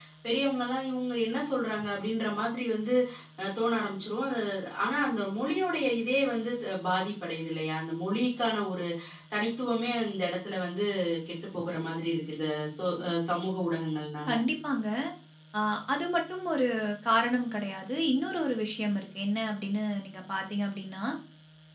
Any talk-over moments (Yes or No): No